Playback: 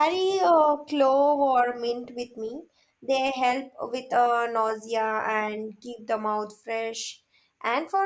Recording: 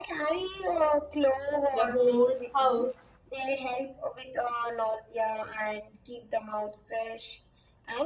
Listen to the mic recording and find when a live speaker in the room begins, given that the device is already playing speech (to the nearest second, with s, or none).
2 s